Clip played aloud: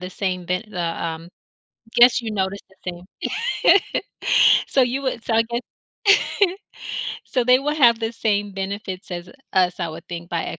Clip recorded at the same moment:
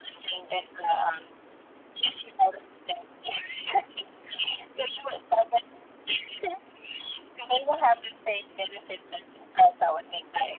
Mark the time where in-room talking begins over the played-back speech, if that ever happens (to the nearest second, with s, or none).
none